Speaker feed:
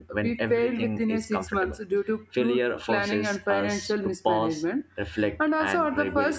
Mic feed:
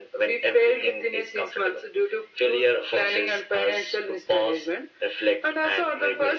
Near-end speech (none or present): none